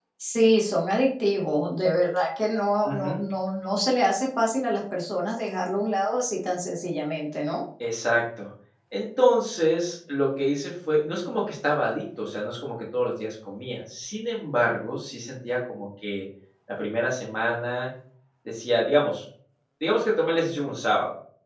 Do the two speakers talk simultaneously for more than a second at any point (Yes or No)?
No